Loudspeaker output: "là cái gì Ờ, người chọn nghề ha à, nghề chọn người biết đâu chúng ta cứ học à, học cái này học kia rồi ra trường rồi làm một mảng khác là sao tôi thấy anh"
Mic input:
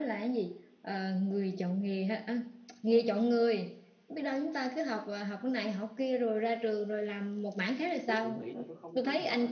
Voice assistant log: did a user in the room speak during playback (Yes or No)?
Yes